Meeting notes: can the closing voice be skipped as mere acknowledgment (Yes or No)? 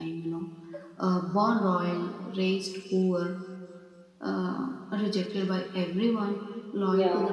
Yes